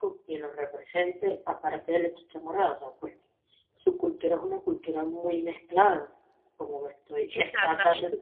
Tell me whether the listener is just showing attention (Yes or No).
No